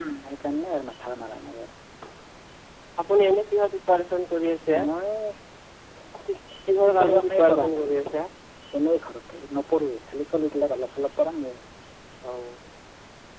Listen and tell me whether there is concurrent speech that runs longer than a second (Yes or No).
Yes